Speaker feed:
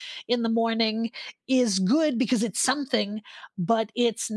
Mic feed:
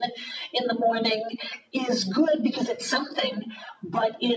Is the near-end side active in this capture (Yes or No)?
No